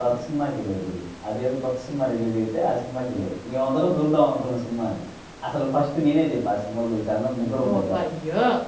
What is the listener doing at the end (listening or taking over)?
taking over